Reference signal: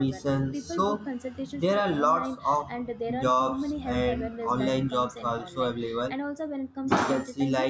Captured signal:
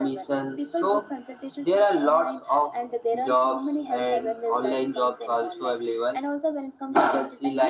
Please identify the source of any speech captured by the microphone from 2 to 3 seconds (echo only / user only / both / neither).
echo only